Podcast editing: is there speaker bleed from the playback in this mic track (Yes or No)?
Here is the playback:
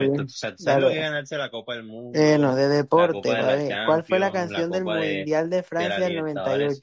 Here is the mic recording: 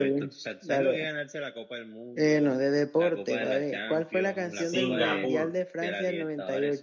Yes